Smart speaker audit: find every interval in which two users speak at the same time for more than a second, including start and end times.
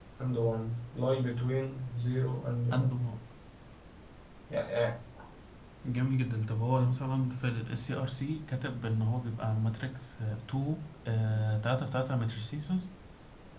none

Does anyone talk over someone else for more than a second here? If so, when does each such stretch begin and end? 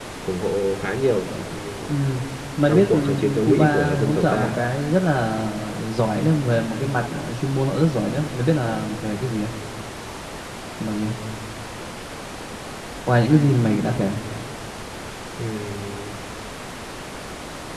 2.7-4.5

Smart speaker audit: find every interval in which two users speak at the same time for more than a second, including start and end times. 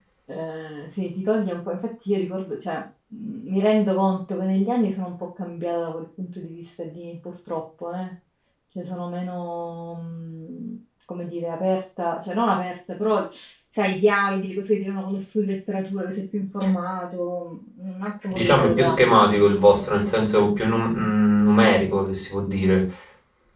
18.3-19.6

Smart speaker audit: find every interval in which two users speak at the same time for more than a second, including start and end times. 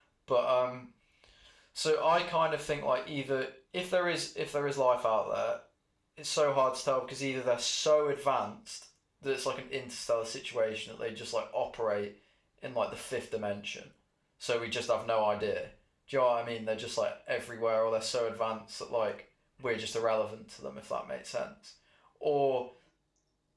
none

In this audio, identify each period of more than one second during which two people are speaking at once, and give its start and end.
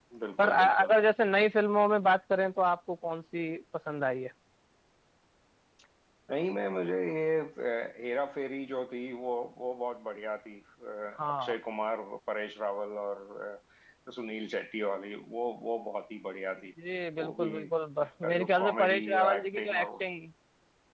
18.2-19.9

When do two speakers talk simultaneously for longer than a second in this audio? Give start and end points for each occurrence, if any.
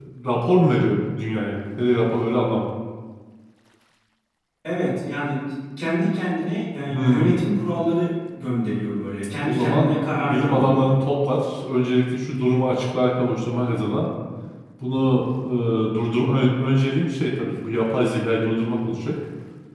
9.4-10.9

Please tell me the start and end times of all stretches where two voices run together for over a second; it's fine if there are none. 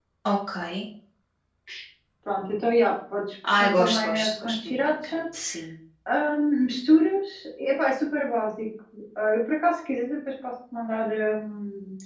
3.5-5.2

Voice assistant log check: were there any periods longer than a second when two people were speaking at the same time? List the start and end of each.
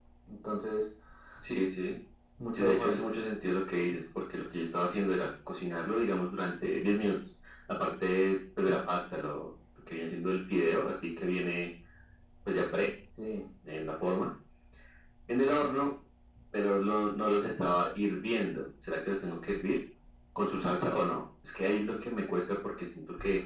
none

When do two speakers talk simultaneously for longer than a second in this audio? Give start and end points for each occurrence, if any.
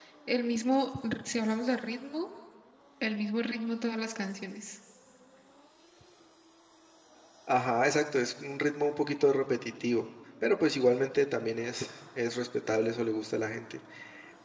none

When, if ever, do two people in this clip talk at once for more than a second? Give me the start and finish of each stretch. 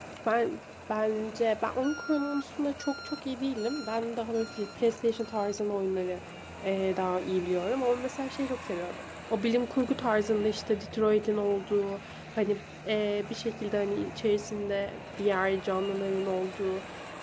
none

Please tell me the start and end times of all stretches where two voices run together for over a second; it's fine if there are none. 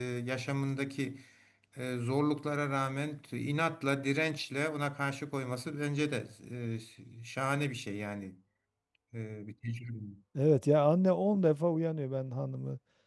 none

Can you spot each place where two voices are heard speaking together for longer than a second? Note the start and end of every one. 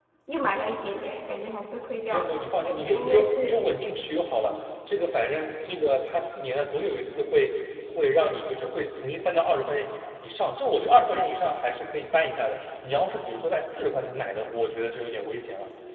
2.1-3.5

